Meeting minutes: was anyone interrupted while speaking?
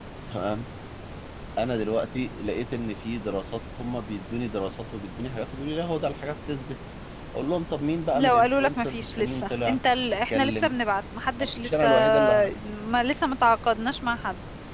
Yes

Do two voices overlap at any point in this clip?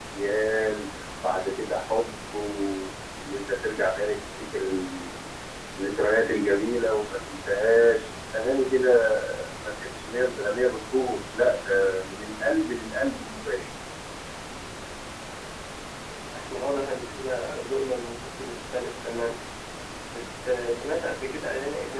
No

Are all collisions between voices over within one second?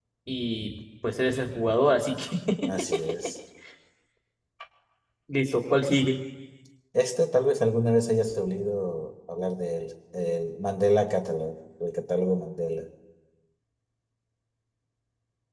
Yes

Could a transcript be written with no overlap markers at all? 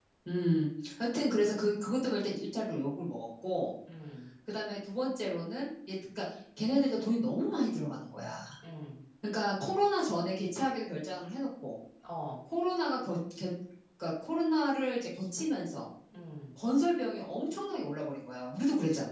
Yes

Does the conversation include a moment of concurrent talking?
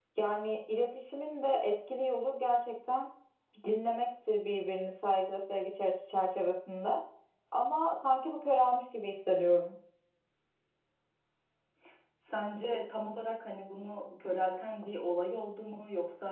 No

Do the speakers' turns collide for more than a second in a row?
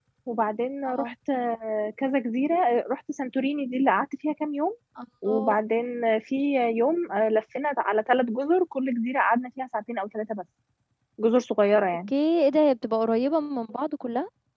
No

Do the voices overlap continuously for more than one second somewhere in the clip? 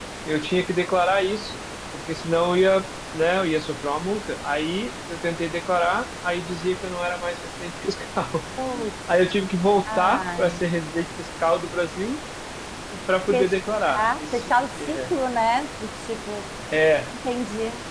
Yes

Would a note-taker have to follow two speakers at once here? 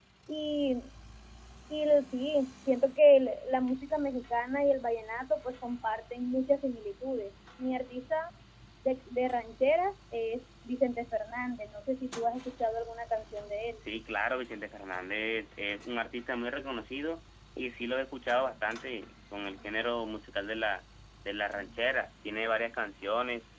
No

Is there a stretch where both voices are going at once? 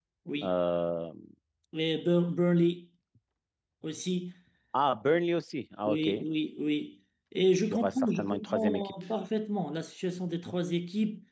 Yes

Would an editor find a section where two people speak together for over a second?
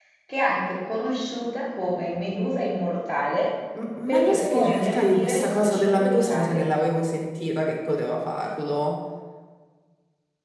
Yes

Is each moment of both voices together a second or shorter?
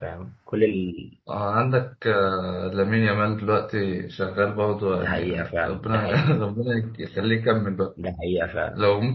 No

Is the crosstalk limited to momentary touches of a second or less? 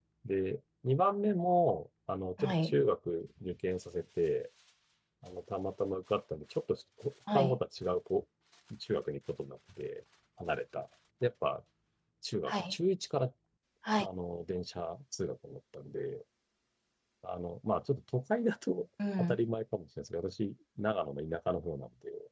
Yes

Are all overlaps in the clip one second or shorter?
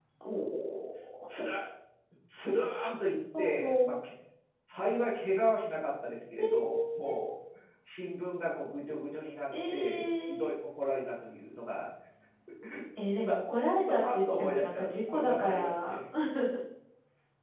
No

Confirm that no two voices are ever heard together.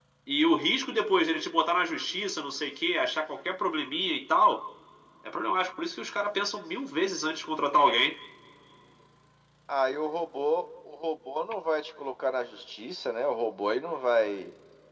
Yes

